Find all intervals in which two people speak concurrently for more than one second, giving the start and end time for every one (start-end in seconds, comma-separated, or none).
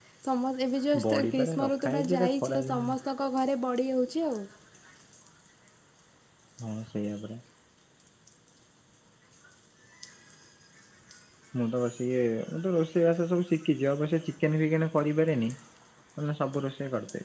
1.0-2.8